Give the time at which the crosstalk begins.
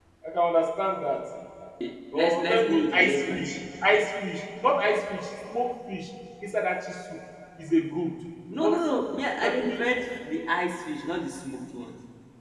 2.2 s

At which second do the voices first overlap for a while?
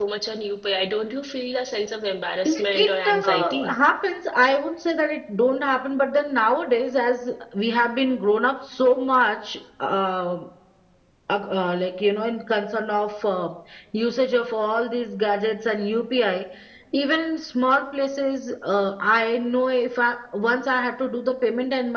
2.5 s

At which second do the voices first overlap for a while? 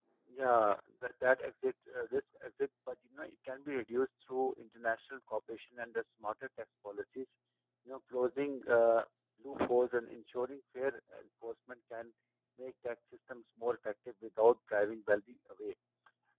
none

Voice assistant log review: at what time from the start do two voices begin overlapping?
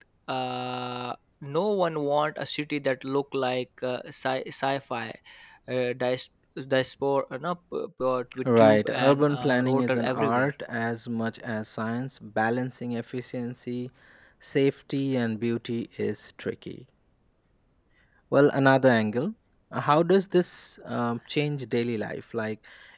8.4 s

